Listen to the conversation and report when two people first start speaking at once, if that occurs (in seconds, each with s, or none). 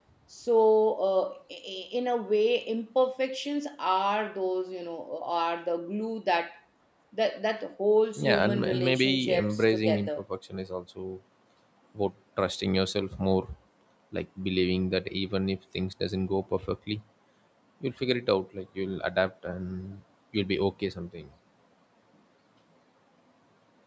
8.2 s